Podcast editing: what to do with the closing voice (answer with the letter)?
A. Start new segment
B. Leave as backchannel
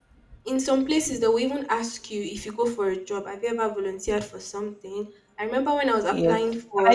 A